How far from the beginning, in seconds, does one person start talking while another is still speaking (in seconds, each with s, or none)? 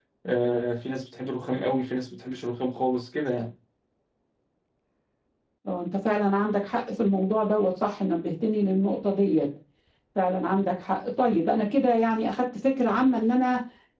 none